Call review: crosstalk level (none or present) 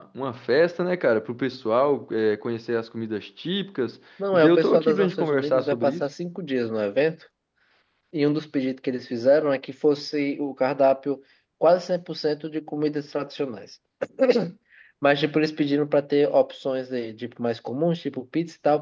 present